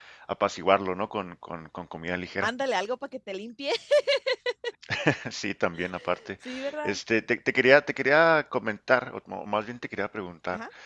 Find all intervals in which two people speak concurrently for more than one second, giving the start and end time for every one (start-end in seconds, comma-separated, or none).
none